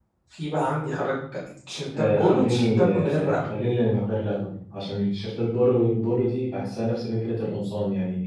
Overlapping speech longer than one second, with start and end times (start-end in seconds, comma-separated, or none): 2.0-3.5